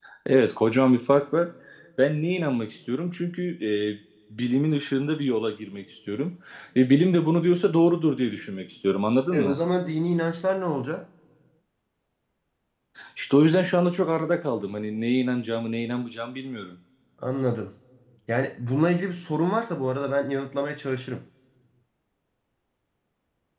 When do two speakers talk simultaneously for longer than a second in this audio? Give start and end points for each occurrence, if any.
none

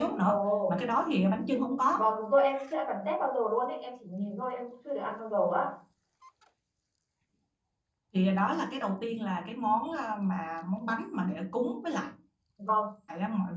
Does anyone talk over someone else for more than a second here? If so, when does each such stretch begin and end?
none

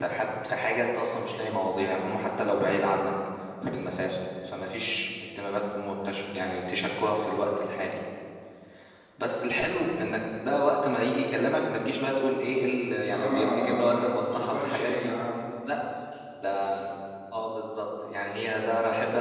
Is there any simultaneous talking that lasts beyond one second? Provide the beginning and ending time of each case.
13.1-15.1

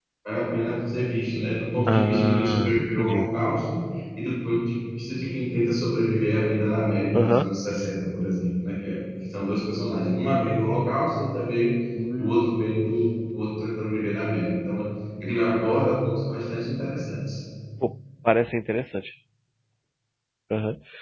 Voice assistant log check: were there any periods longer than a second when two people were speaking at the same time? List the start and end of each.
1.9-3.3

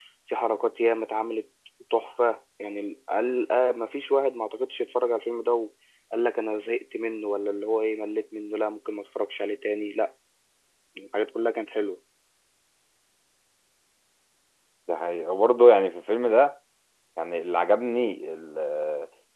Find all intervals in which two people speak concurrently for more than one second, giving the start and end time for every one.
none

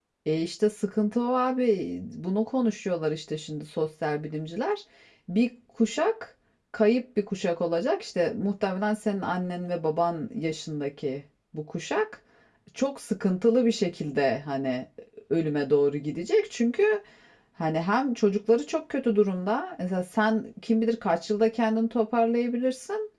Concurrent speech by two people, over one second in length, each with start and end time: none

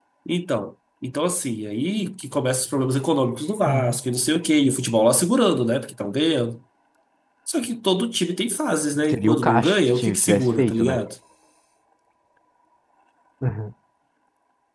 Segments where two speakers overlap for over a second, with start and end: 9.1-11.0

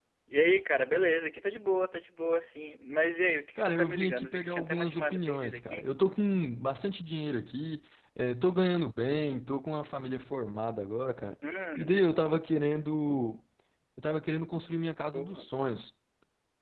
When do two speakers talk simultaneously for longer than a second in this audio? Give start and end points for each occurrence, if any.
3.5-5.9

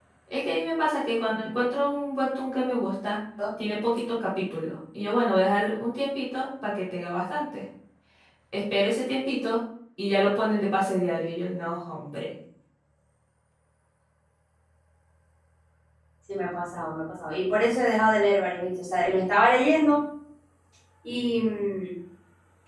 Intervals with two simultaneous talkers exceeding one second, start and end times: none

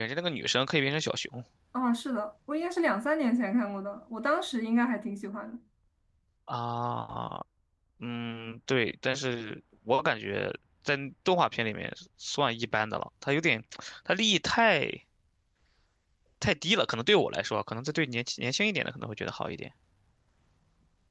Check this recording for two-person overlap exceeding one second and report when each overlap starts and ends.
none

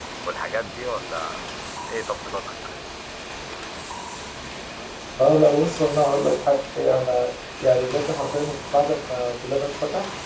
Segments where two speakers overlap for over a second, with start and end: none

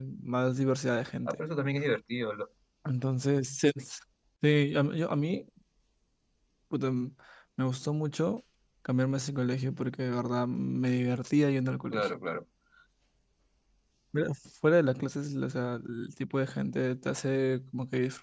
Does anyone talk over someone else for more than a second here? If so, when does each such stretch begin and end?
none

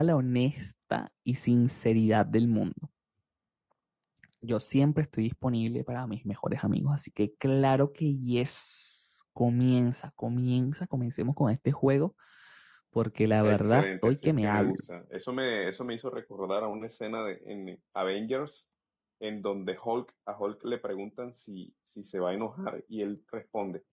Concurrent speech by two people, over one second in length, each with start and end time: 13.4-14.8

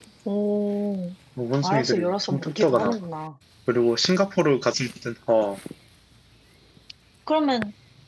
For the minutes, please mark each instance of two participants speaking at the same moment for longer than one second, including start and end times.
1.6-3.0

